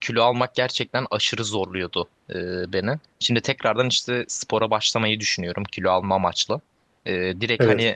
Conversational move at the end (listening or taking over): listening